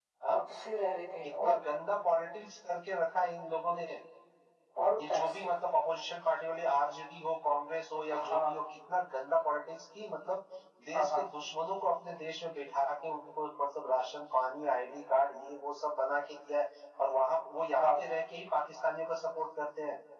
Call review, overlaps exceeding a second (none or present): none